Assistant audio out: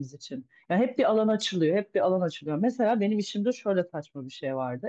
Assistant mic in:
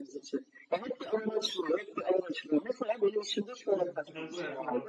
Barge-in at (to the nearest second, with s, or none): 4 s